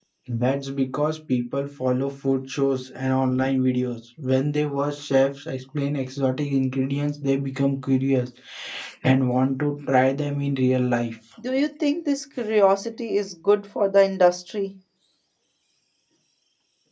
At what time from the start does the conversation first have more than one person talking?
none

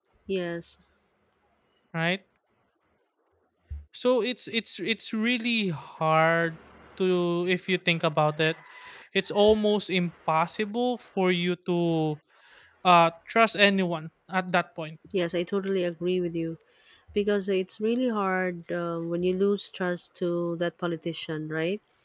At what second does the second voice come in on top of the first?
none

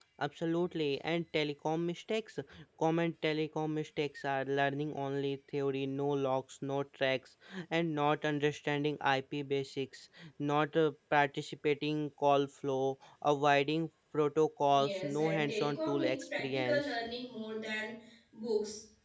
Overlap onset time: 14.7 s

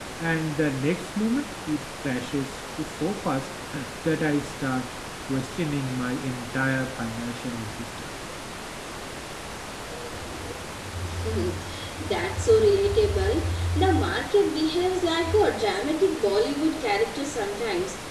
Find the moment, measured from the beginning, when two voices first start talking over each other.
none

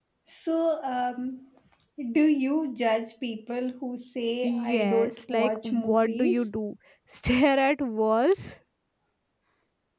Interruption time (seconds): 4.4 s

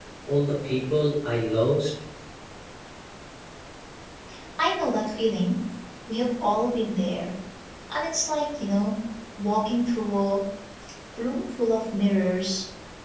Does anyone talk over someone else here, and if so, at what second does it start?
none

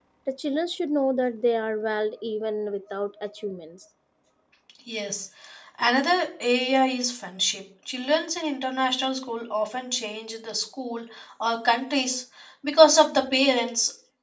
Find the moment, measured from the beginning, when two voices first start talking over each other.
none

